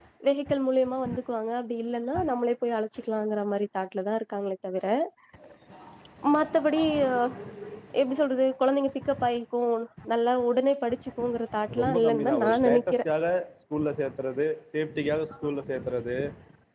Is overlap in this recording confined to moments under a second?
No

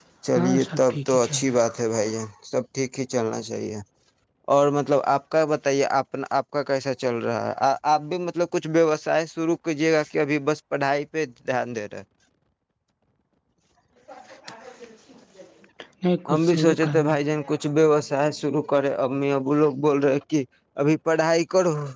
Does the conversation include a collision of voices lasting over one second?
Yes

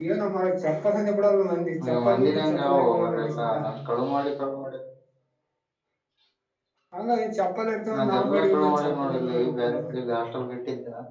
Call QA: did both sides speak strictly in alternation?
No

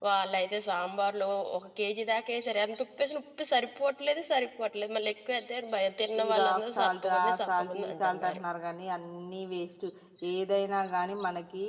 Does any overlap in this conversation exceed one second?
Yes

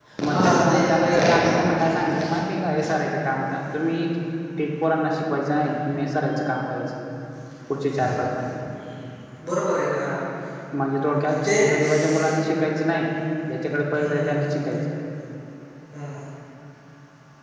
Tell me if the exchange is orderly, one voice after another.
No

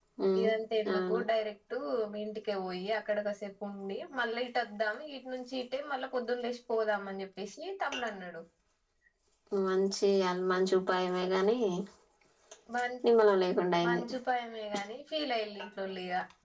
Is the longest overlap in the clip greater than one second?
No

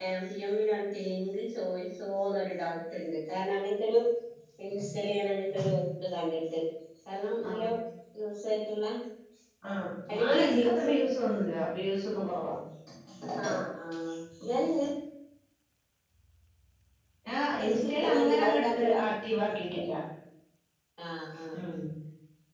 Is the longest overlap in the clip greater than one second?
Yes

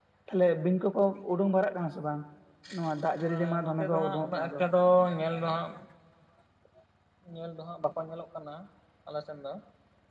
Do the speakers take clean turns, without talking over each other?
No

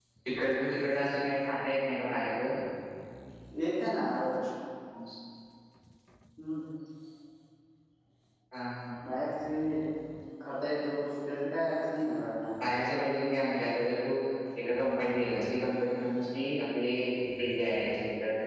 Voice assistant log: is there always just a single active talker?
Yes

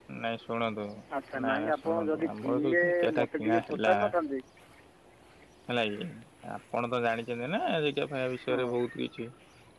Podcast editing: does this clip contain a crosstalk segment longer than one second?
Yes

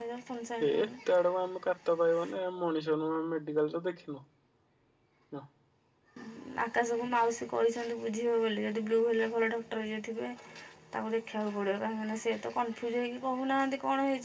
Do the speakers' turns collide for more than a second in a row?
No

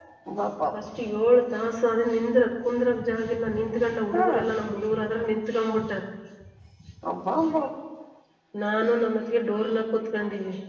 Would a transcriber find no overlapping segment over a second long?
Yes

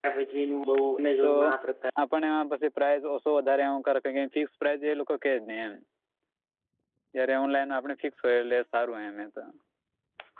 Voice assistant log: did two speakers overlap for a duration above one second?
No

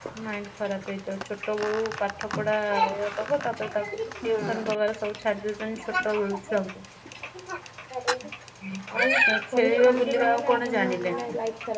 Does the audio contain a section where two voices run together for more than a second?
Yes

